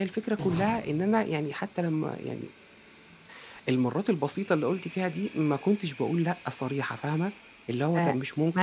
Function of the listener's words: taking over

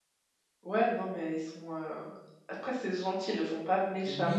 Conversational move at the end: taking over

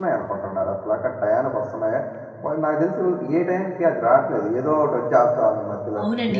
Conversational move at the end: taking over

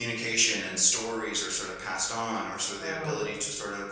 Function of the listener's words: listening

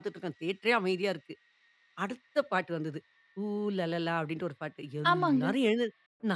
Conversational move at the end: listening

